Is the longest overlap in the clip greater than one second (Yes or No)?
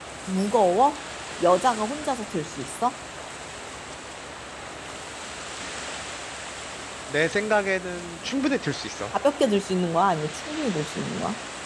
No